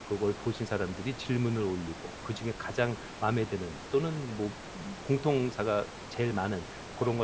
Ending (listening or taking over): listening